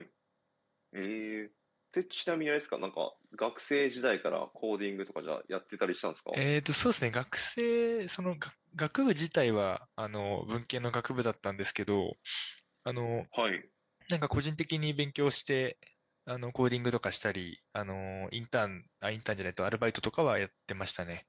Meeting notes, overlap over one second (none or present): none